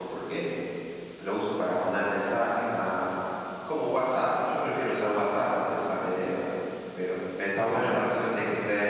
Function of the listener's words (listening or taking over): listening